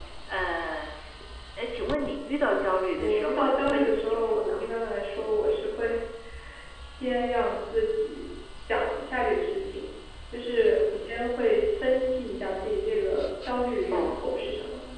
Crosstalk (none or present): present